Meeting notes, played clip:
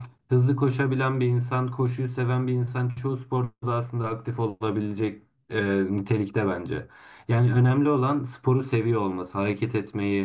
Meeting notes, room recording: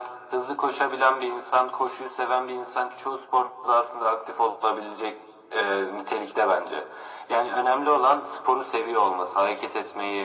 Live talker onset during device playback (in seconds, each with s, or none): none